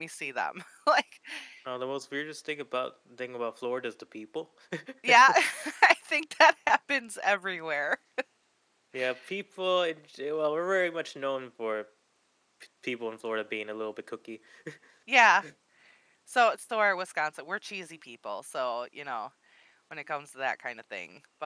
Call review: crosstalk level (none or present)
none